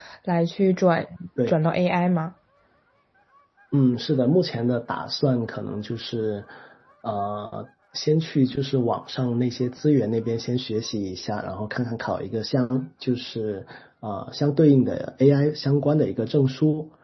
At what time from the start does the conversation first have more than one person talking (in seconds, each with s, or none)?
none